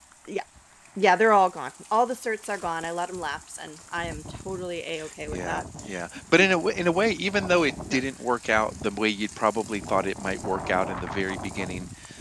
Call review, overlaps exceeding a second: none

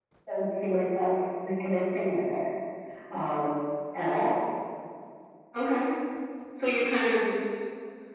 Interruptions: none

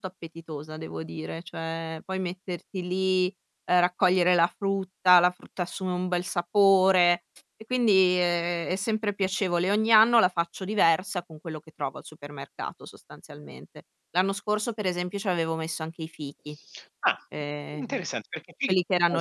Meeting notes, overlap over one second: none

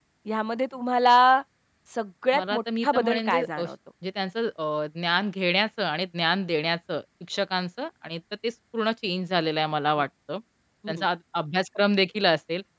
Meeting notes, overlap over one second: present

